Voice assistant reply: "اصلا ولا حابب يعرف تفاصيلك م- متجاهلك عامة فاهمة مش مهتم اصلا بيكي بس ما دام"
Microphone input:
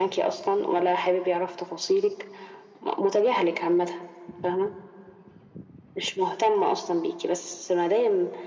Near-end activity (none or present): none